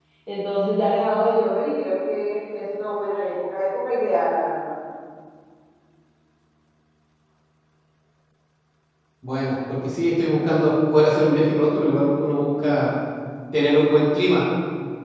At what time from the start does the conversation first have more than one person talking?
none

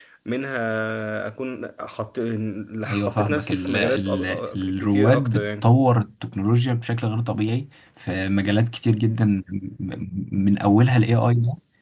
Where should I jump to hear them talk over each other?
2.9 s

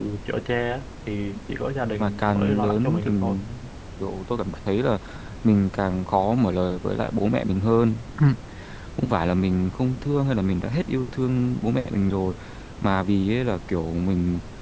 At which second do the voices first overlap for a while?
2.0 s

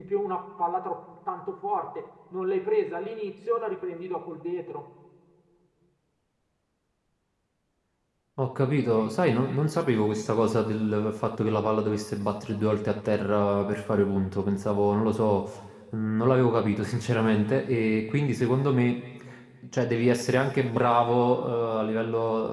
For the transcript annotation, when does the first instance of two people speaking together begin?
none

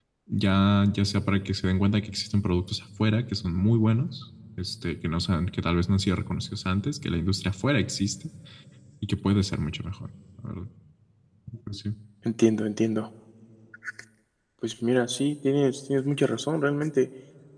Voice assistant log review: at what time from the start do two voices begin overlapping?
none

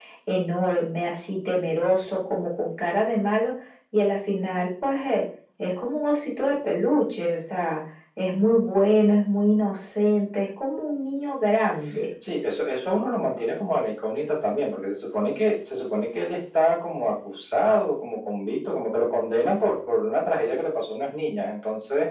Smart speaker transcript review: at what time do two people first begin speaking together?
none

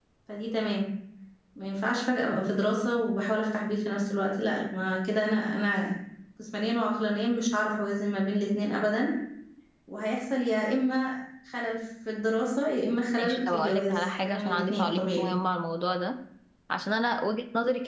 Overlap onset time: 13.2 s

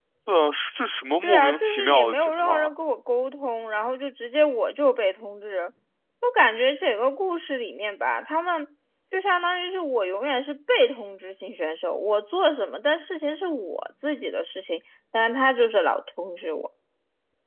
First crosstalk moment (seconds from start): 1.2 s

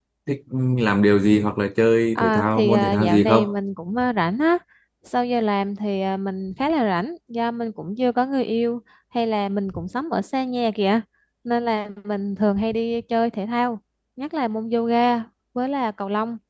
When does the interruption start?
2.2 s

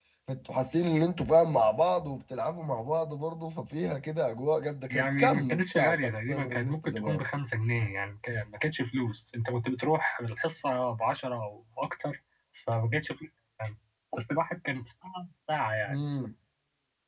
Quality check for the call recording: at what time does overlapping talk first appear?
4.9 s

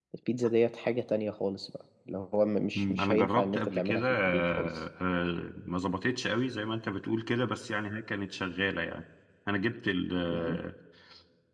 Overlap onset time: 2.8 s

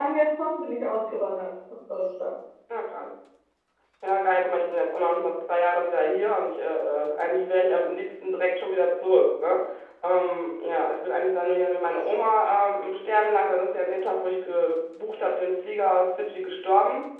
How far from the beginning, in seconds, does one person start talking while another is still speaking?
none

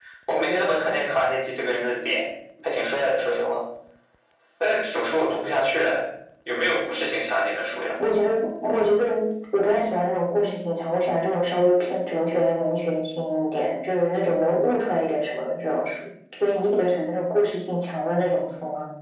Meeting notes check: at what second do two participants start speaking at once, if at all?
none

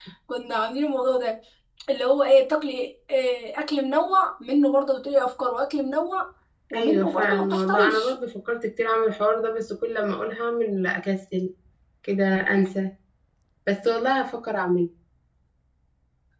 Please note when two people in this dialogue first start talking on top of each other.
6.8 s

